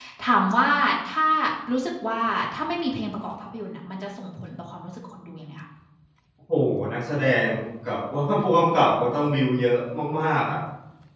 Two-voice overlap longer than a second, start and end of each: none

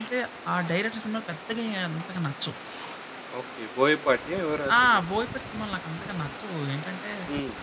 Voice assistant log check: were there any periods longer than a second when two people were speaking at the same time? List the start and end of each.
none

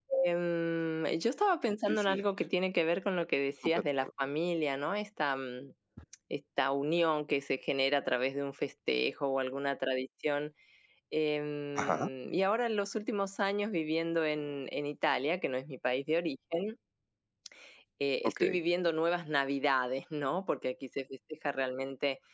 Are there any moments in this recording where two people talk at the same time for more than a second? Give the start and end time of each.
none

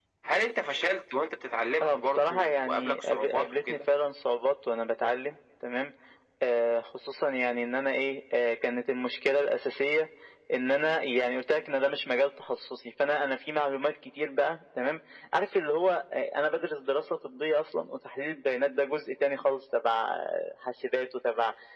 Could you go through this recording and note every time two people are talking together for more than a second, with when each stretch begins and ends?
1.8-3.8

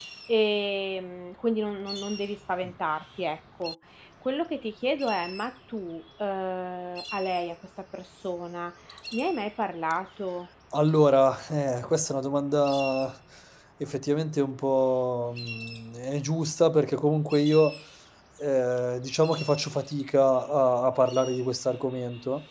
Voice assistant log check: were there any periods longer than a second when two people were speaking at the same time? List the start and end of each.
none

